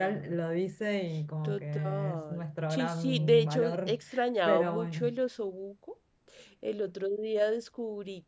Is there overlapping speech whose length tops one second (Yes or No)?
Yes